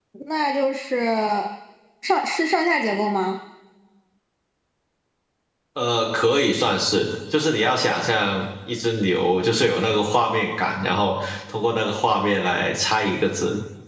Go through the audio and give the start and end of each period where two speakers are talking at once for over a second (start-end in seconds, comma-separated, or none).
none